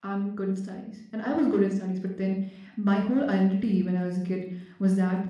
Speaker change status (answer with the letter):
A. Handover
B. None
B